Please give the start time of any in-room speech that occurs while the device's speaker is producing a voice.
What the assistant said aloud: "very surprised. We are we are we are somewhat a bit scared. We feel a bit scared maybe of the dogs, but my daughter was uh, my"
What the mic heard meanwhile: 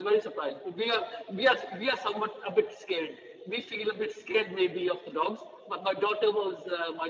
none

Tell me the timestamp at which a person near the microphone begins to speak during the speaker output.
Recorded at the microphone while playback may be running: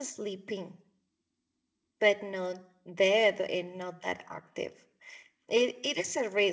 none

